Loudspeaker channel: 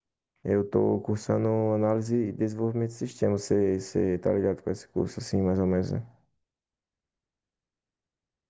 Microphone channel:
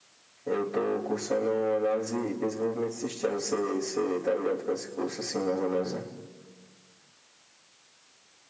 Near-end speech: none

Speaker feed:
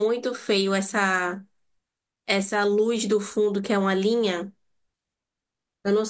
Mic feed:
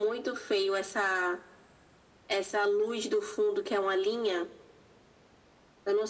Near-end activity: none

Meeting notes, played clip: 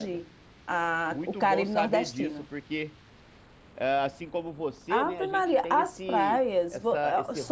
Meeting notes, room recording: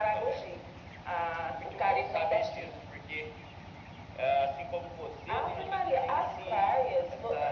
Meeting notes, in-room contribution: none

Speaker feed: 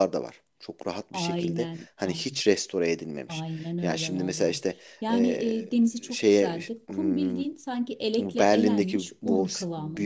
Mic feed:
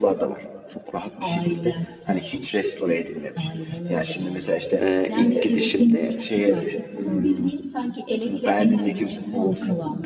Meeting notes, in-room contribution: present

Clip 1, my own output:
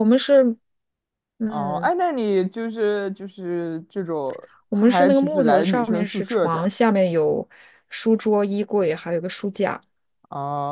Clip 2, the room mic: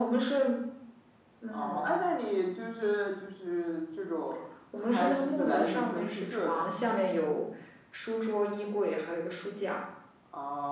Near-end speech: none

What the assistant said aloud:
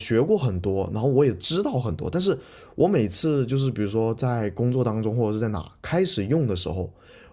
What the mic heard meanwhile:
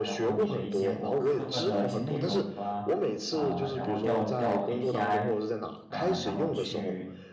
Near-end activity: present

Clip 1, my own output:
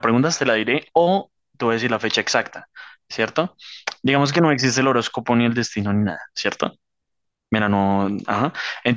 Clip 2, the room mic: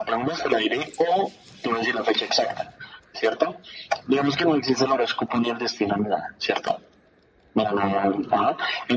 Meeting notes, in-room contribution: none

